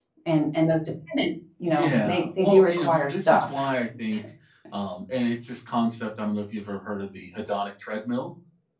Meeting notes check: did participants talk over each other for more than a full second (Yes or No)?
Yes